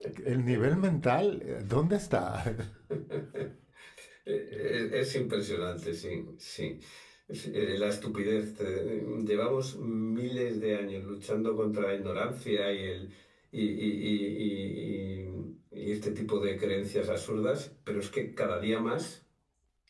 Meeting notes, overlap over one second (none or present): none